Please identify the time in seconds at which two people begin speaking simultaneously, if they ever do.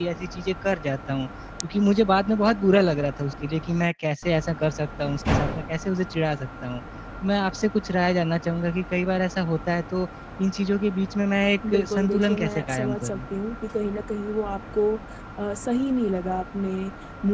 11.6 s

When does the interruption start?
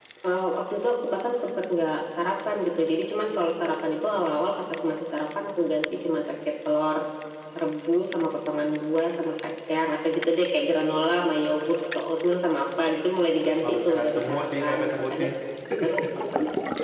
13.6 s

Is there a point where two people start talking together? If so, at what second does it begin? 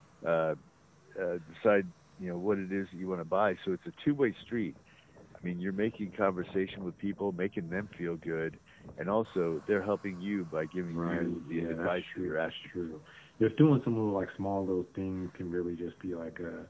10.8 s

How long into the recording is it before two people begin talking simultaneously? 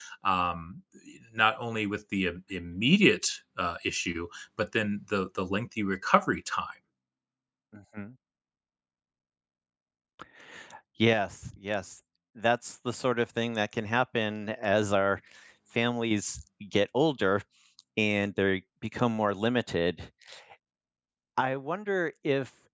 none

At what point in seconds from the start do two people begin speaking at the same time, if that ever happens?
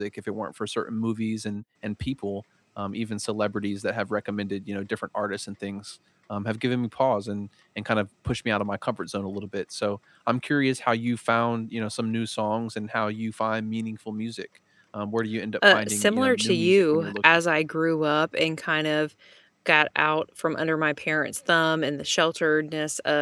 15.6 s

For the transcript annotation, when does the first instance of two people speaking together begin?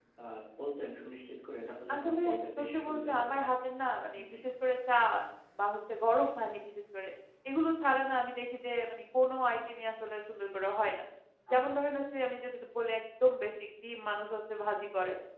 1.9 s

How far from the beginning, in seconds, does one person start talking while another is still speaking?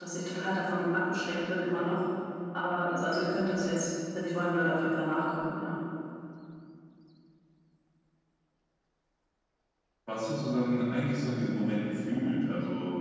none

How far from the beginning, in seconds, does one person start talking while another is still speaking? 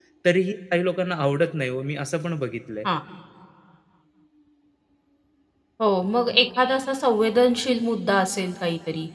none

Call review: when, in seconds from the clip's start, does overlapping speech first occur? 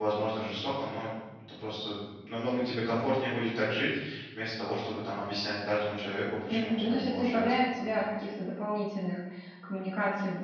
6.5 s

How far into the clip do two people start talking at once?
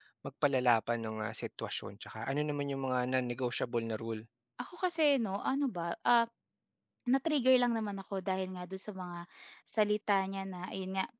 none

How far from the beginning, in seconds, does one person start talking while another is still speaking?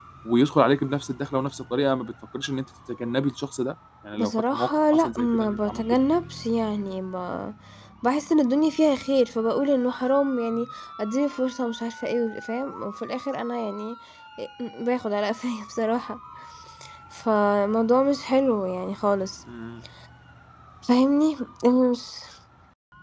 4.1 s

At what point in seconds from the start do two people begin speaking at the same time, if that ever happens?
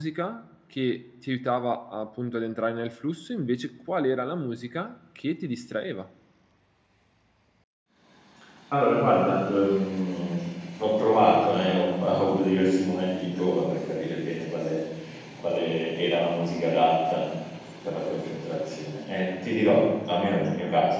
none

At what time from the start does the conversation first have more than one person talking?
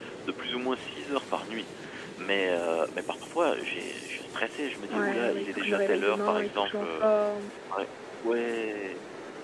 4.9 s

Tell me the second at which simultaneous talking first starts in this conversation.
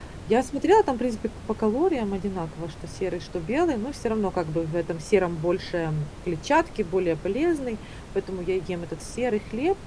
none

